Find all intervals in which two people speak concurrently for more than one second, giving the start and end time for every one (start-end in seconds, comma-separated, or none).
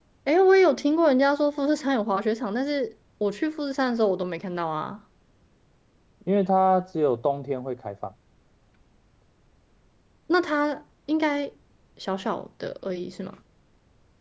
none